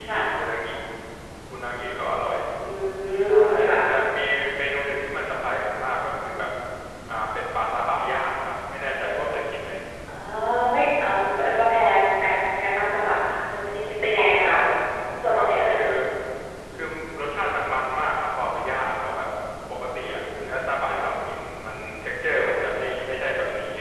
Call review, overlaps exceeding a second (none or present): none